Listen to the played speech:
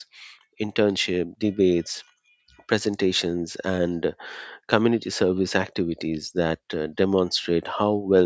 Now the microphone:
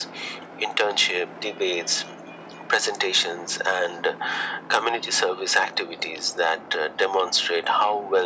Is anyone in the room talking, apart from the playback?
No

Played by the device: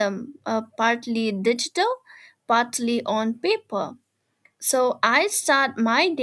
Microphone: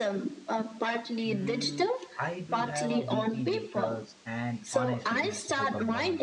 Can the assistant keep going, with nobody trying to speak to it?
No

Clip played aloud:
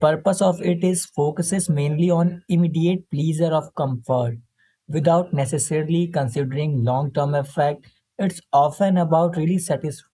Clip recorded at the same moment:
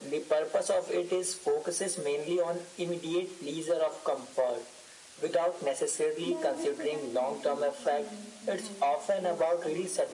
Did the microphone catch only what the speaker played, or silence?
No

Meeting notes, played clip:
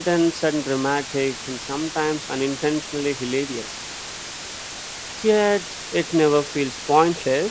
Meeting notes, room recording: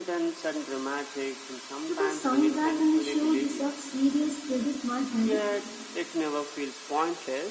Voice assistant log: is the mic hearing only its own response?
No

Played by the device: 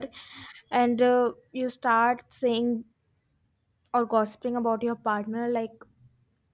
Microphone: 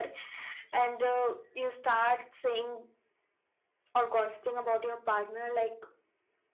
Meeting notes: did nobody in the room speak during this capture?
Yes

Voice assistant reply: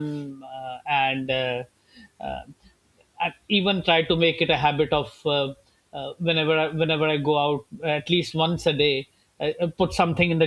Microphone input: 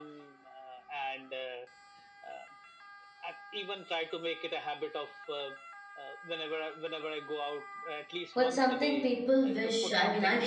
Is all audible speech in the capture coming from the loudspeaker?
No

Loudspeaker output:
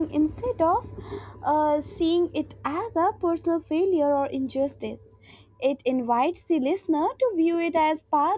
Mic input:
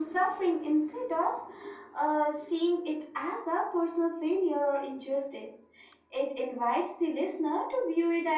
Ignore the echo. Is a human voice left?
No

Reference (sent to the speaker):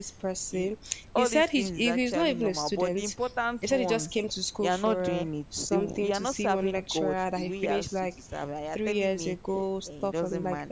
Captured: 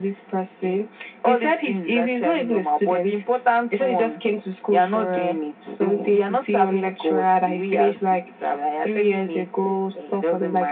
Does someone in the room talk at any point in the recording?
No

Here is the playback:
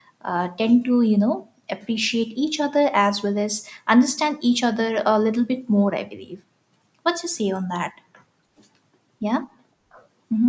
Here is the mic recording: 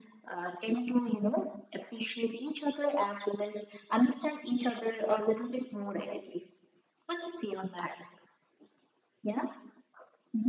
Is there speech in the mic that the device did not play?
No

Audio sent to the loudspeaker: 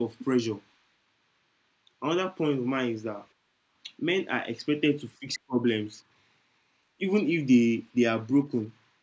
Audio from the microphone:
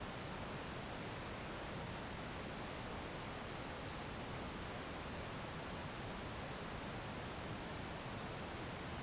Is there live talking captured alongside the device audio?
No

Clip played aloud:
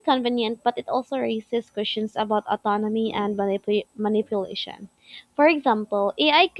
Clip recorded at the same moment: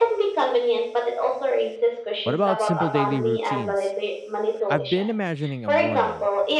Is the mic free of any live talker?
No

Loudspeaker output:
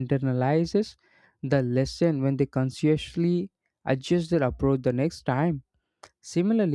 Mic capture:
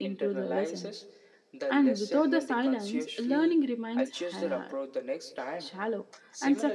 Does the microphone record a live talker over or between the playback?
Yes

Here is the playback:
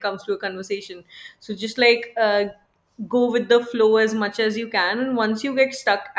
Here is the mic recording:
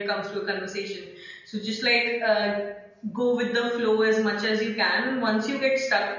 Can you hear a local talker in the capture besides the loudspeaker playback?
No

